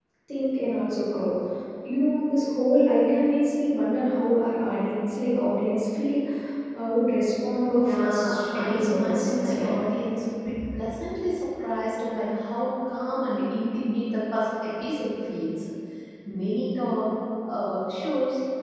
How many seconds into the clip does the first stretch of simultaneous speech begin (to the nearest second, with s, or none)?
8 s